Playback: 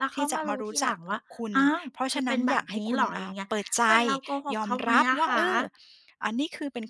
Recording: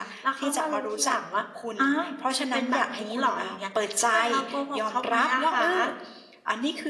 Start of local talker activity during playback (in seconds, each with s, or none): none